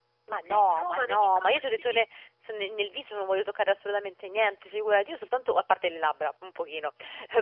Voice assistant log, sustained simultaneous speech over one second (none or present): present